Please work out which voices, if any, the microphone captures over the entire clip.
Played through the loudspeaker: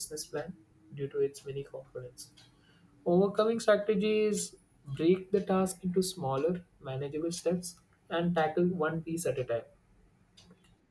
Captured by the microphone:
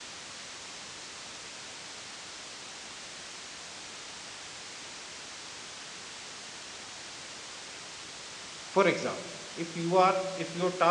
user only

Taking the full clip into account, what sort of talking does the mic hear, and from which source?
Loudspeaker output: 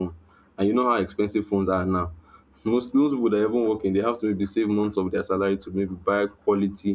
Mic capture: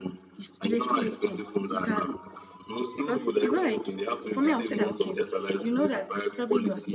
both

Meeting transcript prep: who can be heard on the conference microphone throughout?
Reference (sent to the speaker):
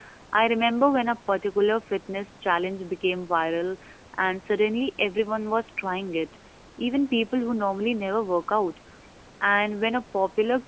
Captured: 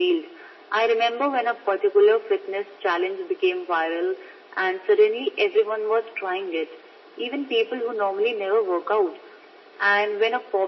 echo only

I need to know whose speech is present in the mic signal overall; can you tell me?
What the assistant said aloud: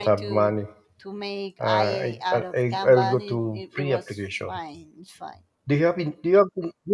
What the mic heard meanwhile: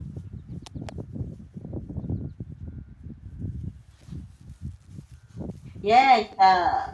user only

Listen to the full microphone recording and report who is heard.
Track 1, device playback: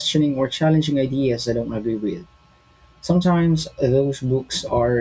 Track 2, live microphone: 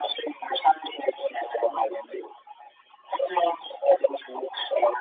echo only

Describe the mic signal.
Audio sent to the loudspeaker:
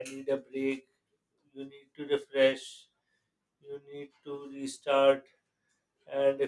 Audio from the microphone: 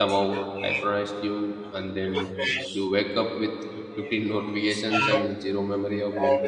both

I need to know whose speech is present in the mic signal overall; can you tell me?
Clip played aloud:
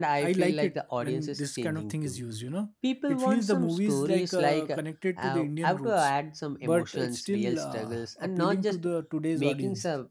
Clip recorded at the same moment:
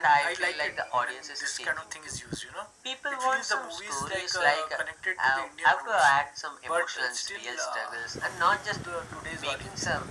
echo only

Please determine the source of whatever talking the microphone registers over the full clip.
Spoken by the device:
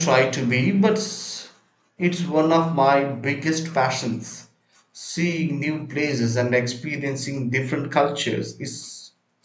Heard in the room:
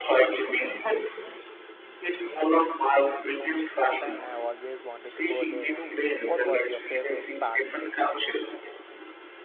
both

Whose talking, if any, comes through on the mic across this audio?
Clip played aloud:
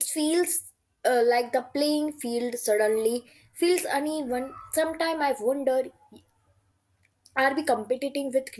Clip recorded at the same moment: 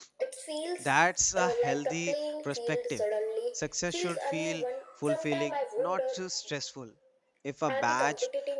both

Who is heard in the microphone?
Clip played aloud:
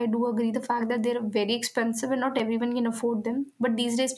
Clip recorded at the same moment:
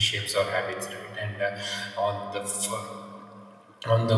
user only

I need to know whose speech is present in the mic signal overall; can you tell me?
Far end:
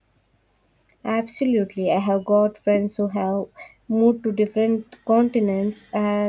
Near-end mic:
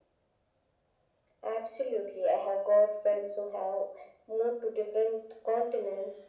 echo only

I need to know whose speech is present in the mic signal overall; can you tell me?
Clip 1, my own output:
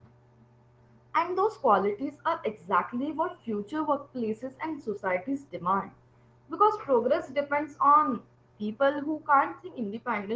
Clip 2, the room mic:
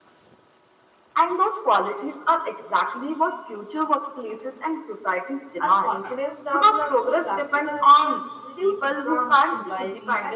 both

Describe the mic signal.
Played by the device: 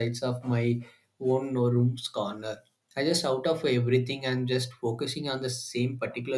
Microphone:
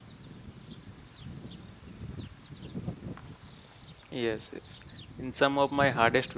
user only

